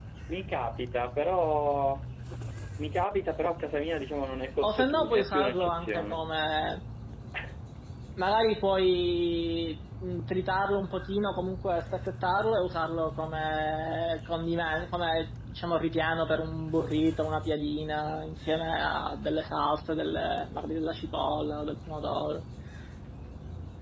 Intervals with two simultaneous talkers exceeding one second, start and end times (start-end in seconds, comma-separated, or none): 4.8-6.2